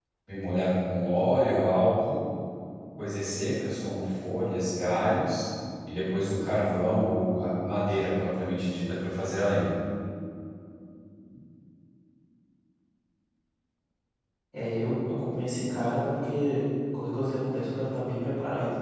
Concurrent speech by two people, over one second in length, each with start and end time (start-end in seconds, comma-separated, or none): none